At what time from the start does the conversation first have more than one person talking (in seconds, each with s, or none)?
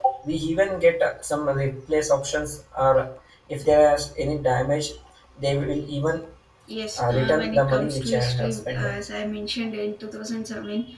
7.0 s